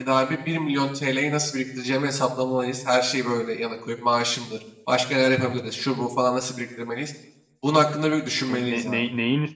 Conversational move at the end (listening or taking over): taking over